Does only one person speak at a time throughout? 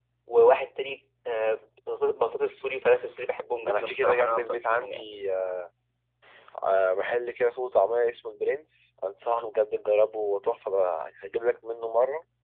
No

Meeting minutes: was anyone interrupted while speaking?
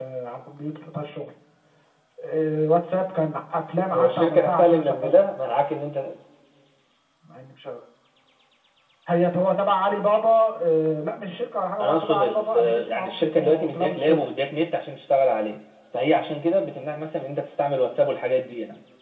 Yes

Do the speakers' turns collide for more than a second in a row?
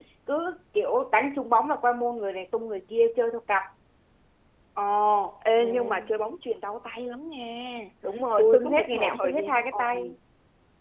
Yes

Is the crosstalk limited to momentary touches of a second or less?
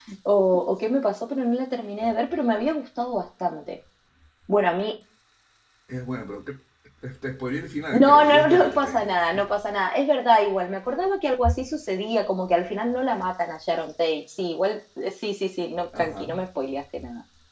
No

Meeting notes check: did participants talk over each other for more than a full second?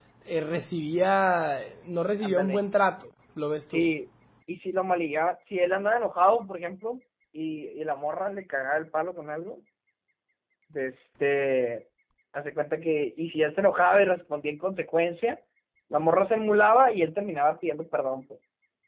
No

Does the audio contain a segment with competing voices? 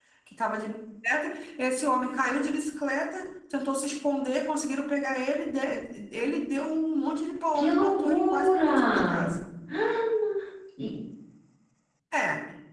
Yes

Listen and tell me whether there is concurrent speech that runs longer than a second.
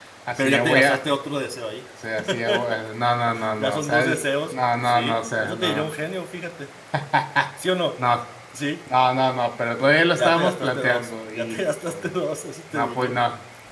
Yes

